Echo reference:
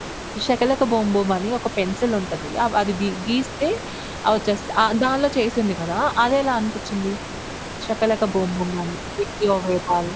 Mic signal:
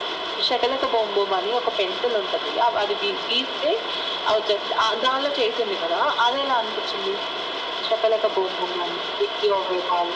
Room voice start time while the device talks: none

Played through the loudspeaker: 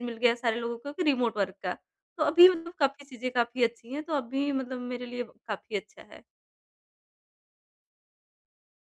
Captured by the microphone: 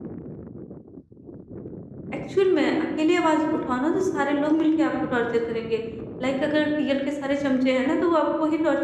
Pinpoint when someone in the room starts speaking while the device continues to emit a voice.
2.1 s

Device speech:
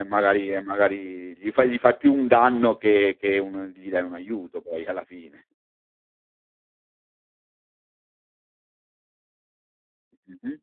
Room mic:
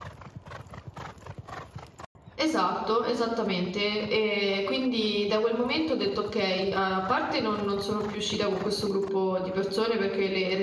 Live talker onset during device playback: 2.4 s

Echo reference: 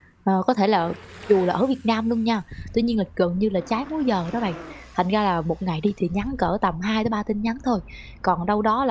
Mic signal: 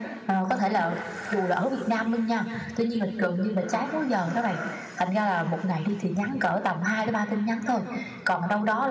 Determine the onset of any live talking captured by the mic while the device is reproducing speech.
none

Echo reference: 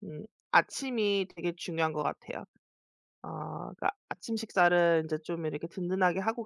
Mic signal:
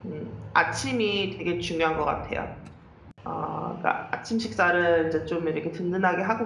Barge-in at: none

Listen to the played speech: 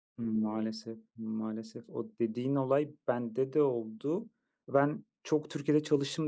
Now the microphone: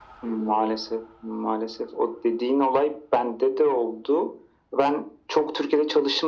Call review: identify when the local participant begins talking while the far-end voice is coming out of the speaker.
none

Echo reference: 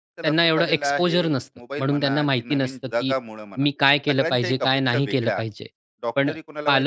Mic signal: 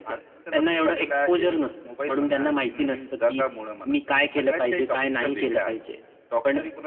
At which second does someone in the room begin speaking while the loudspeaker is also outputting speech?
none

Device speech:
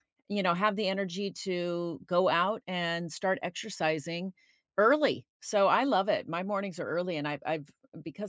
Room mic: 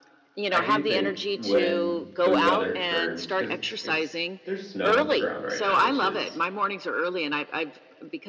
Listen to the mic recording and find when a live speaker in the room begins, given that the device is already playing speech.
0.5 s

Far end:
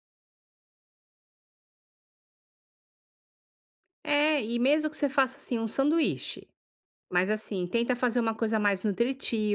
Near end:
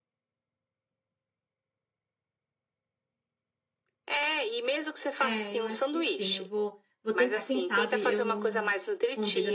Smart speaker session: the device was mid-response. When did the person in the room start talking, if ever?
5.2 s

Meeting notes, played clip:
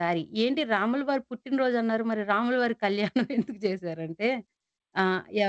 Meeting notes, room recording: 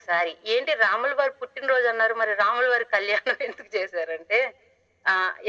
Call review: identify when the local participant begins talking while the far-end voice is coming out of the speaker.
none

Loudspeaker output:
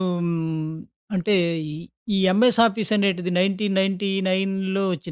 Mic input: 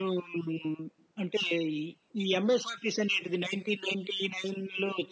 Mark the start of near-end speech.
none

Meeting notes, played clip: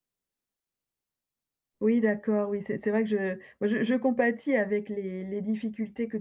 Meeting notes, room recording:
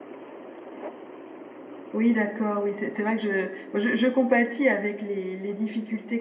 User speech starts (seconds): none

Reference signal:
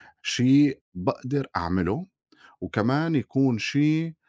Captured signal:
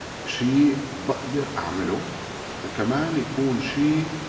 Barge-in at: none

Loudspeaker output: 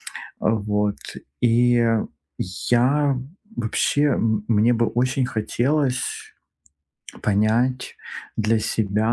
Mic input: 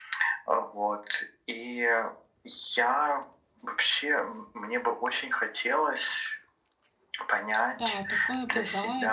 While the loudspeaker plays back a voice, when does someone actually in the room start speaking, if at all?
7.7 s

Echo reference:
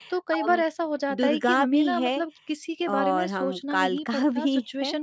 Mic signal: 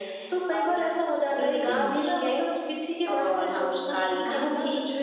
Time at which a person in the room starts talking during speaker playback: 1.6 s

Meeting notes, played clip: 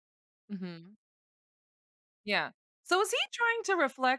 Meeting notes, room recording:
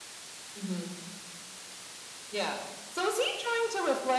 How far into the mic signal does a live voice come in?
none

